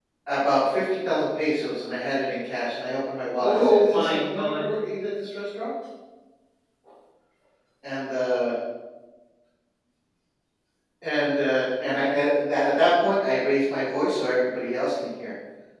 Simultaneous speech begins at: 3.4 s

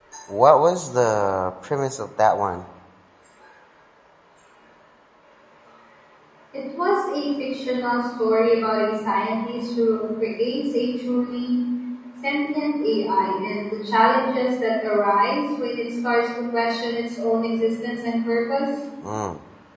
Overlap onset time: none

